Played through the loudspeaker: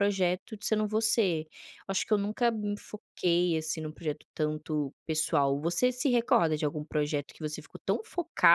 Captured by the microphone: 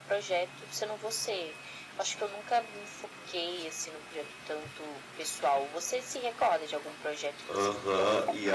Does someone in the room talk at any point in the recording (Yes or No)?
Yes